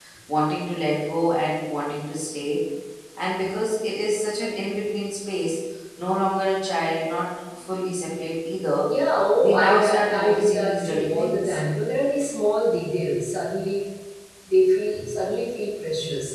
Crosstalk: present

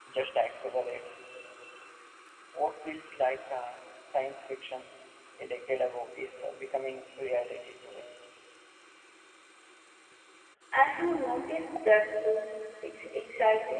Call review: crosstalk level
none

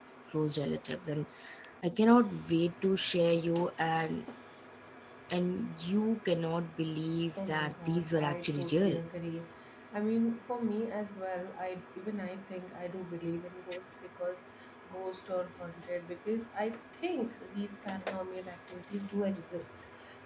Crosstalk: present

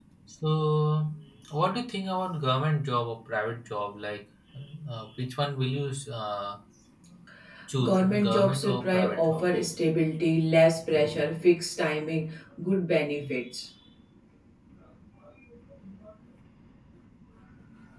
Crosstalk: present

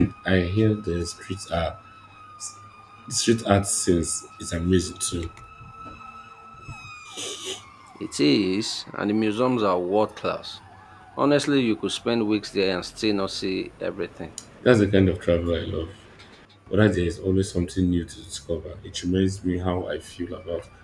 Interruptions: none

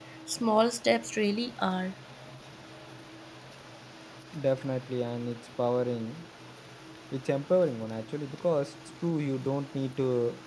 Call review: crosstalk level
none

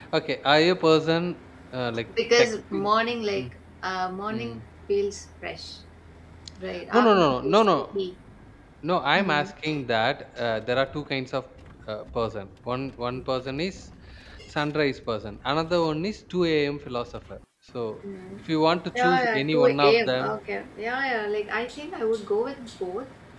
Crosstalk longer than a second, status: present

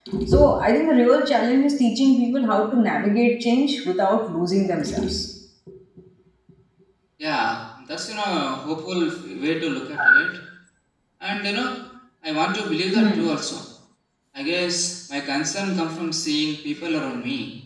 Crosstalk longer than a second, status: none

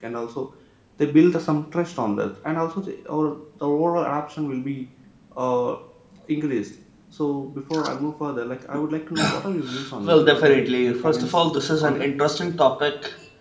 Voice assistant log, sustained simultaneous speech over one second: present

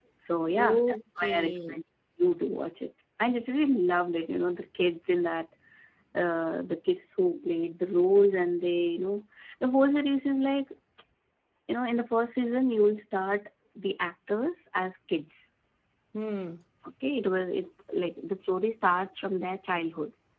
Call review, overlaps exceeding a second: present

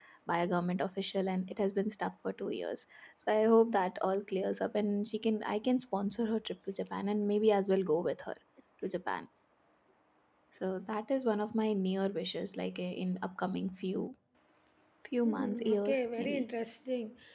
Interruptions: present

